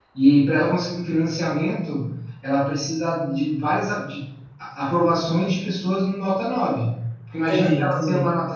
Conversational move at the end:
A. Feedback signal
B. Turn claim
A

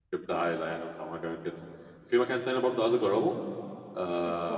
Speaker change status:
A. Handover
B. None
B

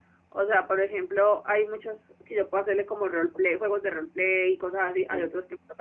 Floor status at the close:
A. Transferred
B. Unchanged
B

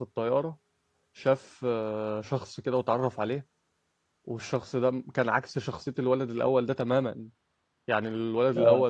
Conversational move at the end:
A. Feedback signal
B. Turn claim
A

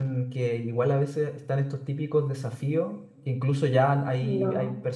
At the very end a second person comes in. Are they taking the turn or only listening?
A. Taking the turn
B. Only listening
B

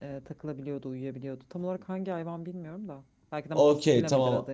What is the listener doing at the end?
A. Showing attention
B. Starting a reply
B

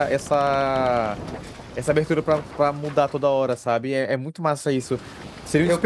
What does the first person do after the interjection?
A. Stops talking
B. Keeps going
B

